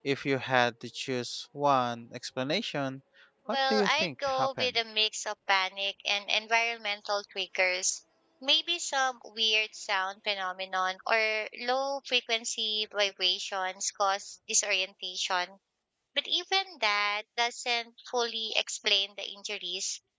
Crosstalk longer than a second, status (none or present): present